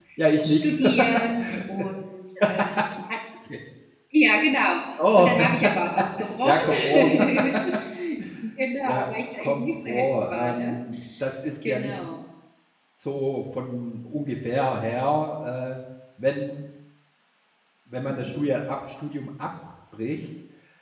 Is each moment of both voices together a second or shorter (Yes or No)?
No